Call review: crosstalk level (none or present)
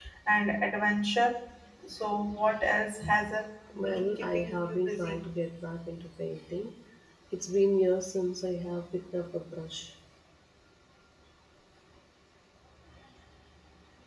present